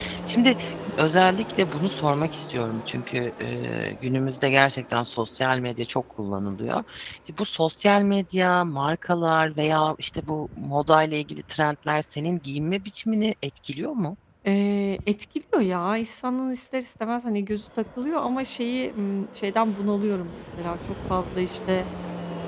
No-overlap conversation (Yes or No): Yes